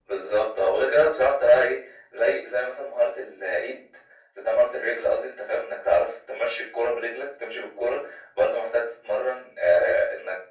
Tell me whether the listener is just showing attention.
Yes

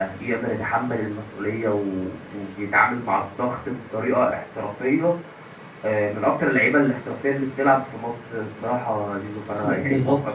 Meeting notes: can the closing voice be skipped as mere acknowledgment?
No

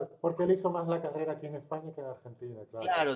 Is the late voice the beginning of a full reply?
Yes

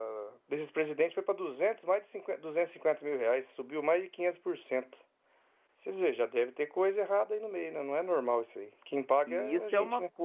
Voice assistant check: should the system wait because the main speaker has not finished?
No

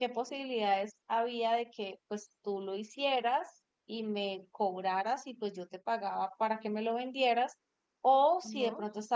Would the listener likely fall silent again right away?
Yes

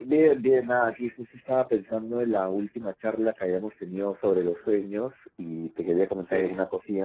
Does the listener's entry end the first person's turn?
No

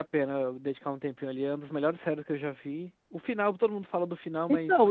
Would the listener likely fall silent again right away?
No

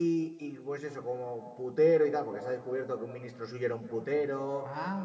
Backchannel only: Yes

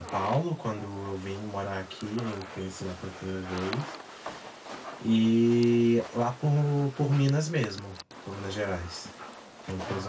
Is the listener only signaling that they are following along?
No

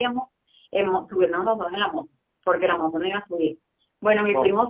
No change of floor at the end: Yes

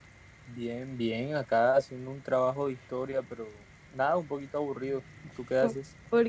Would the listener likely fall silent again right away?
No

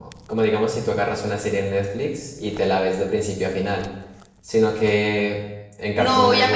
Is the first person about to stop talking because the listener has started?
Yes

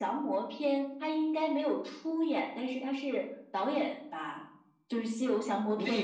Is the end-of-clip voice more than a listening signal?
Yes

